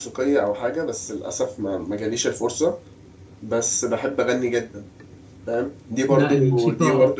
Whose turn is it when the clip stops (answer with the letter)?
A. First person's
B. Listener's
A